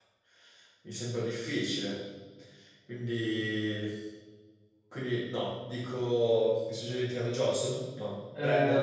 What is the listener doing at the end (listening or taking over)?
taking over